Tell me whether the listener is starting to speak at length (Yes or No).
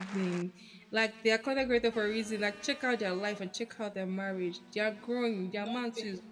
No